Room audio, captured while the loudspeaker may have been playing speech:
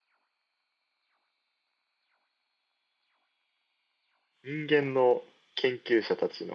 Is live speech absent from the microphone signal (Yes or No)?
No